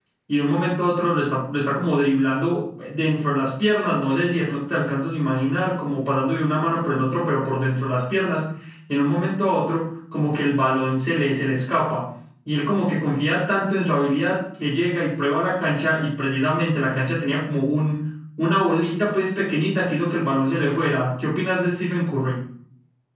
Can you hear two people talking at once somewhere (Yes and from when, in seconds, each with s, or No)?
No